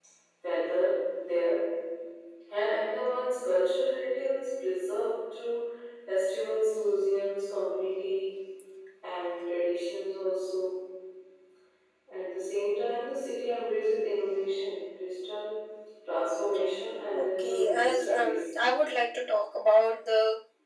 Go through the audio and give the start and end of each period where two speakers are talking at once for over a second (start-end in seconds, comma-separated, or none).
17.1-18.5